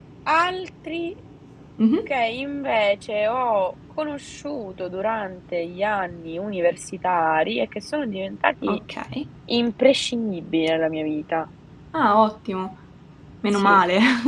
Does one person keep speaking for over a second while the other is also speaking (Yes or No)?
No